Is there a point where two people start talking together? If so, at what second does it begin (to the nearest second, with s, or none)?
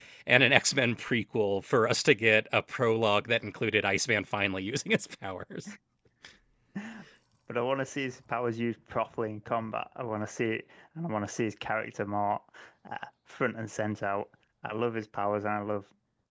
none